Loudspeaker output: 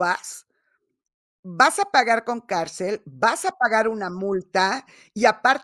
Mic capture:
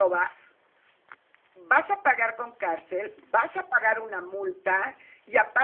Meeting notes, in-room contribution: none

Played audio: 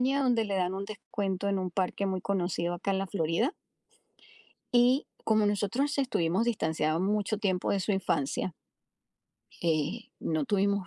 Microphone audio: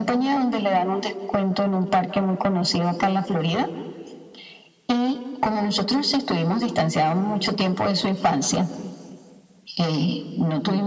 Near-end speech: none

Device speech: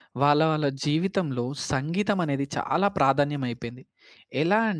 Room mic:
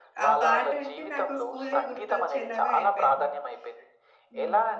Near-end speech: present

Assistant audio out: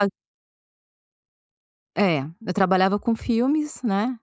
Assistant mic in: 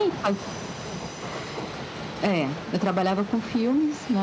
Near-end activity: none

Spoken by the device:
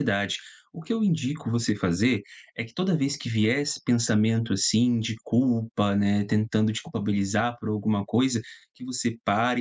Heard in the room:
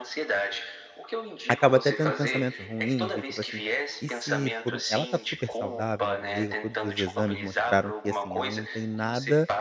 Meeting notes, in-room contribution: present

